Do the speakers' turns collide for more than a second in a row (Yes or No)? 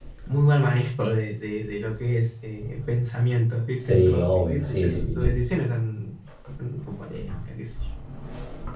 Yes